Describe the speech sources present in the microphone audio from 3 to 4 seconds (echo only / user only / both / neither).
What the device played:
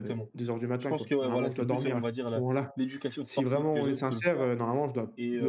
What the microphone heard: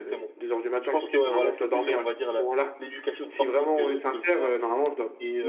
echo only